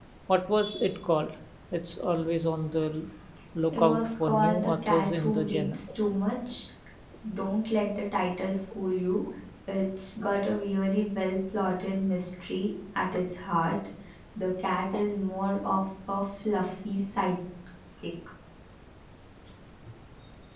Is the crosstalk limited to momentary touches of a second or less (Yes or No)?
No